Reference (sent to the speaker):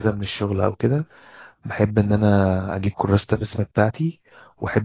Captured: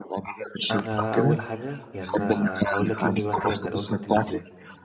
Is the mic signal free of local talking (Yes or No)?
No